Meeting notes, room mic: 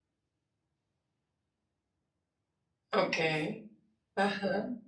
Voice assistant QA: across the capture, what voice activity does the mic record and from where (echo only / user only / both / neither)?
user only